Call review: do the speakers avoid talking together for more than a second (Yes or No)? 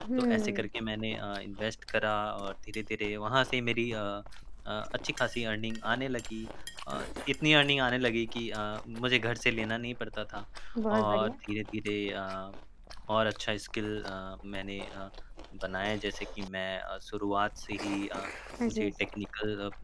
Yes